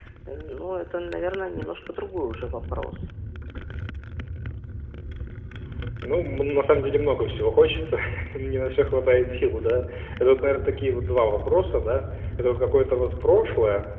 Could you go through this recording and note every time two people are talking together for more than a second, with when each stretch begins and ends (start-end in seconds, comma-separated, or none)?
none